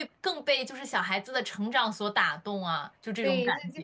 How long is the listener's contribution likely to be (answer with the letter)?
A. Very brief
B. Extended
B